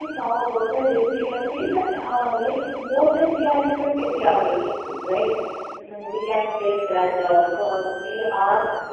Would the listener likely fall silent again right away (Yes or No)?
Yes